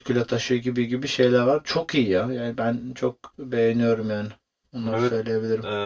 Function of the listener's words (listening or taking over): taking over